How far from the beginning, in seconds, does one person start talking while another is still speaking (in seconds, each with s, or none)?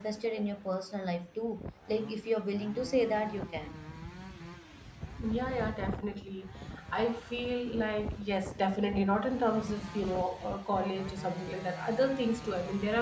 none